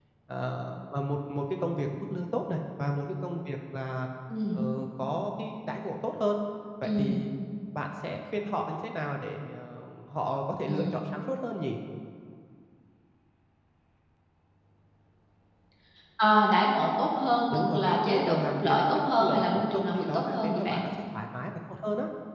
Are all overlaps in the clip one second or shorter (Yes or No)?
No